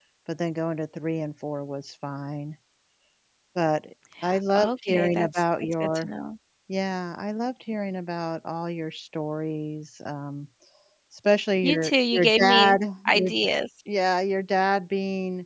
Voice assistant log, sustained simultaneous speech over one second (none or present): present